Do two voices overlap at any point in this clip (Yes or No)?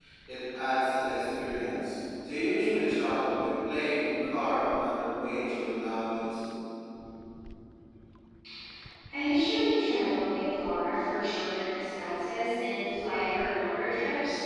No